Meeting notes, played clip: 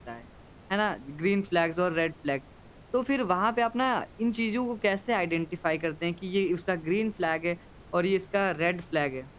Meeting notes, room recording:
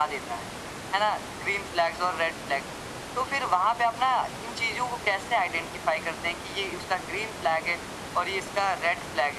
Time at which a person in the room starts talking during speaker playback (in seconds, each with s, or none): none